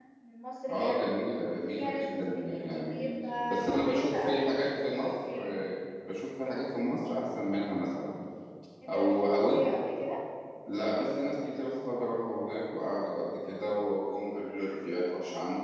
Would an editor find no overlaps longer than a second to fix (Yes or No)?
No